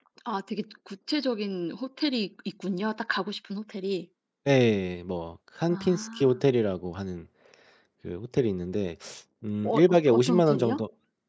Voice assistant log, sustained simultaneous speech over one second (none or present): present